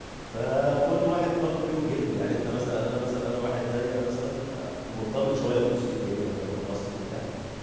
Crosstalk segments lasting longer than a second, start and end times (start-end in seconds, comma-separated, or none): none